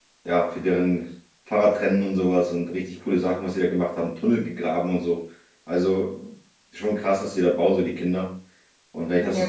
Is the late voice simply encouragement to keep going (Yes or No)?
Yes